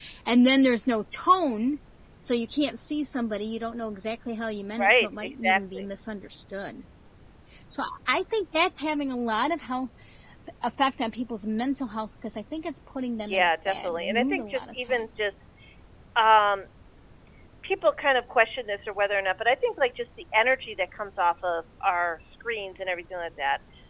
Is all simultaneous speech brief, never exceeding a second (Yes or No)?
No